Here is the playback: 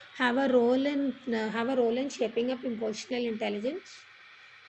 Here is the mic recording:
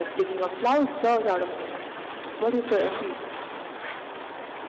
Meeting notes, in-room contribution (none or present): present